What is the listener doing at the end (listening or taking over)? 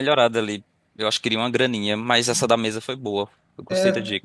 taking over